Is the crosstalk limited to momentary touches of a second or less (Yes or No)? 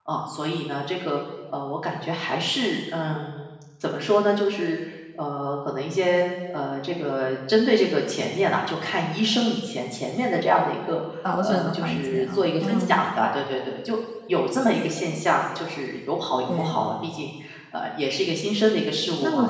No